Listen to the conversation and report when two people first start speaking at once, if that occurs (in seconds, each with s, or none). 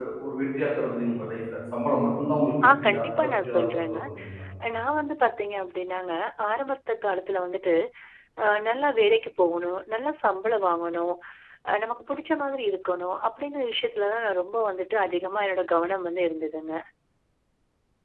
2.6 s